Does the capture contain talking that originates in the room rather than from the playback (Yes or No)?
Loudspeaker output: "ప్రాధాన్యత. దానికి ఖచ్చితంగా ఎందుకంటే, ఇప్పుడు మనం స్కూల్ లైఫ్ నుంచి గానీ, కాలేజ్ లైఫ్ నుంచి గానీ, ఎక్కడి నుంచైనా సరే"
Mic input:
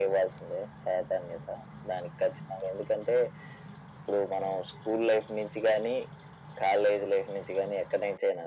No